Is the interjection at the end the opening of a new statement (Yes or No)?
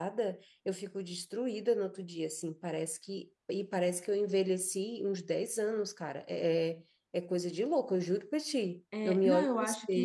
Yes